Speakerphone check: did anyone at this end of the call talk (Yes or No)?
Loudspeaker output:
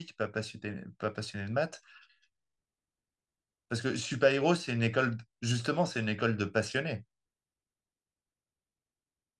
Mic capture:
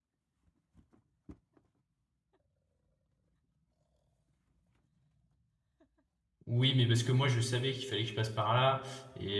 Yes